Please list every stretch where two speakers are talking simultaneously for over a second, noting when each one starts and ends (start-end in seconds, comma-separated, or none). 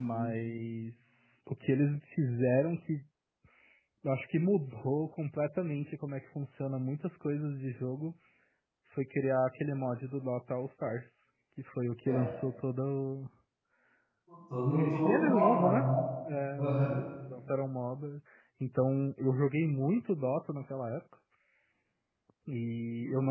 14.7-15.8